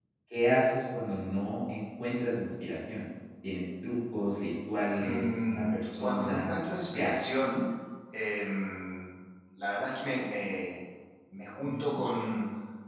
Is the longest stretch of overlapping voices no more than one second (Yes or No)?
No